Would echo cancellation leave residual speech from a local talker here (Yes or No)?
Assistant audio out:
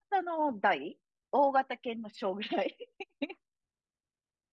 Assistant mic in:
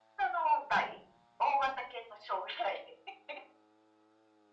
No